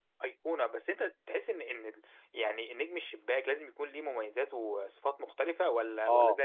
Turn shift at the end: Yes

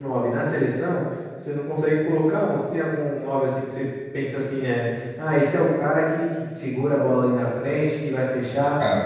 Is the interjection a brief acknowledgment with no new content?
Yes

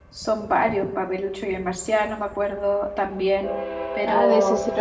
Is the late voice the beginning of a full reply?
Yes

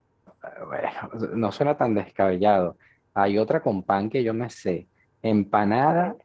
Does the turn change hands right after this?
No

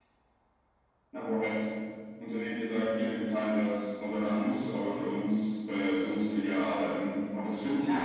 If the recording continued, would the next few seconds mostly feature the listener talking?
Yes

